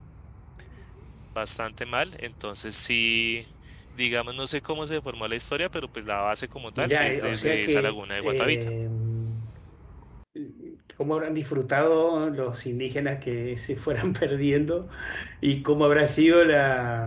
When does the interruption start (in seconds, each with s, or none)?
6.8 s